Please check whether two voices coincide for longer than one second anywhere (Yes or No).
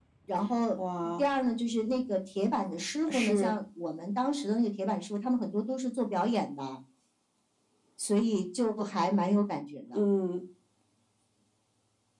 No